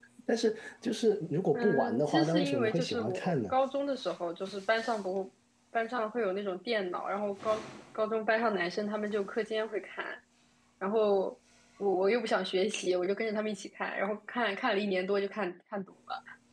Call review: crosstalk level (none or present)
present